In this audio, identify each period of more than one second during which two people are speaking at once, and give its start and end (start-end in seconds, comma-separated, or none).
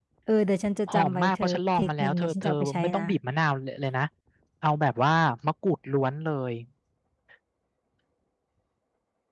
0.9-3.0